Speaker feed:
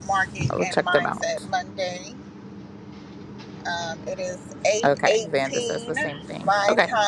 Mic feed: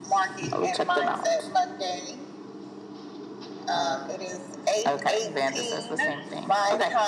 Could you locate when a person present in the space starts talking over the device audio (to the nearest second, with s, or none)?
4 s